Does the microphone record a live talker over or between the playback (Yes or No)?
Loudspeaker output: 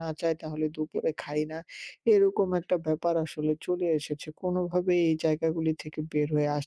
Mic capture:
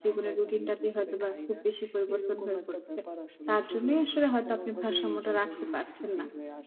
Yes